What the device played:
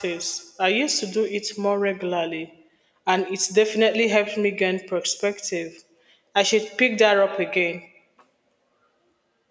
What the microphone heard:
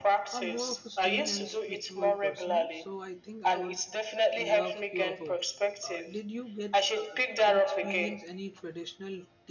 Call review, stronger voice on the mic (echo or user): echo